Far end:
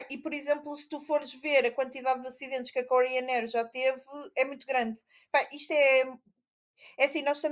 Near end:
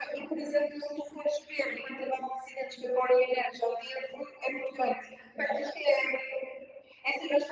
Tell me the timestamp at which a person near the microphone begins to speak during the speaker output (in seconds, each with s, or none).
none